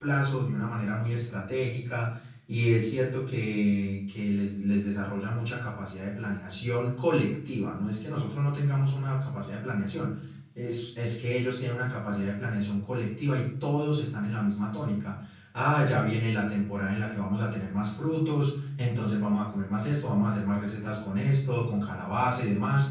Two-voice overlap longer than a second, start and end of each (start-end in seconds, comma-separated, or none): none